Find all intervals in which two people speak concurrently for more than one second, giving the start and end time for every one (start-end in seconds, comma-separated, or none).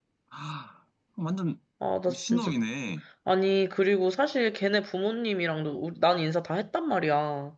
none